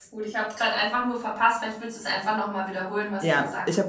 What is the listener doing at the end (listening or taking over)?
taking over